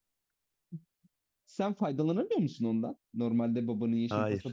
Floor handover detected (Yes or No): Yes